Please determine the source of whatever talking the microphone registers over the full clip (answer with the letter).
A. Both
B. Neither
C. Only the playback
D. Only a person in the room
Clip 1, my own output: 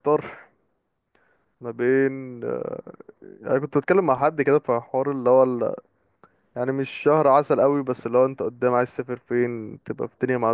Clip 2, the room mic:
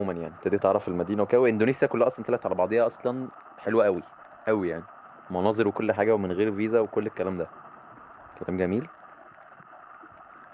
D